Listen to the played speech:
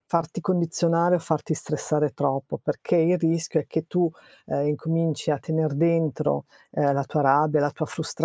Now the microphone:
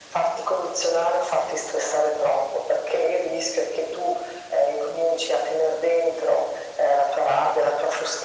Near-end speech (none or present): none